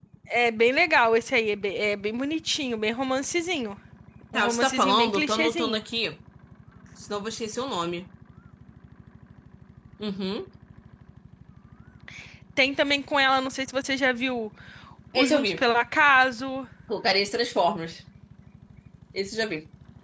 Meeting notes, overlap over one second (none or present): present